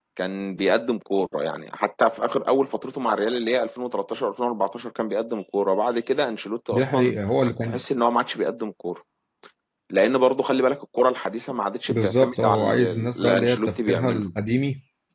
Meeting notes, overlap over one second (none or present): present